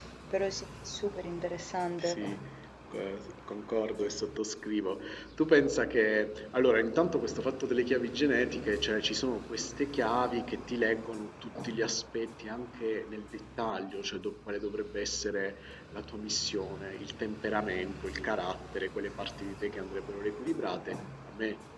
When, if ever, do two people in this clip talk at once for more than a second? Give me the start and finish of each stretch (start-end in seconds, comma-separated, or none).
none